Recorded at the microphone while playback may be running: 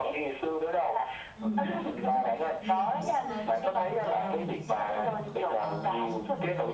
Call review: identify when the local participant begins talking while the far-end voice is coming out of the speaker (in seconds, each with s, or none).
1.3 s